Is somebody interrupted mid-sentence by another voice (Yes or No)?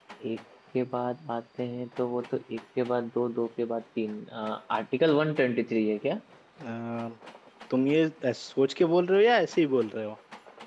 No